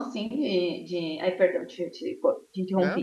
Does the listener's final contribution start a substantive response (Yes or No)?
No